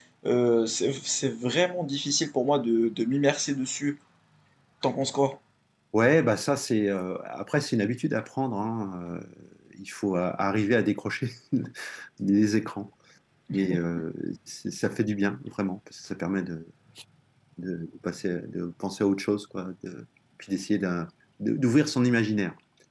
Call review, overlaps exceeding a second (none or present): none